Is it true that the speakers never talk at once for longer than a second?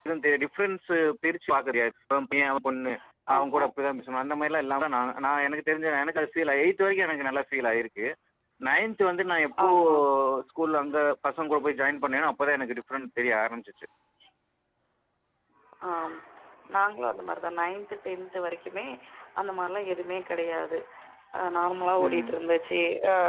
Yes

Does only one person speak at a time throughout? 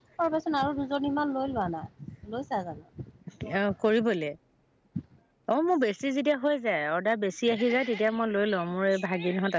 Yes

